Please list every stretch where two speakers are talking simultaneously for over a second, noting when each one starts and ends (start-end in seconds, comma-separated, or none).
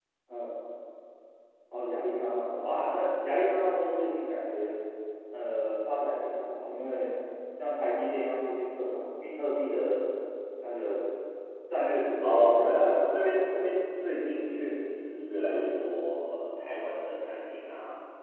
12.2-13.5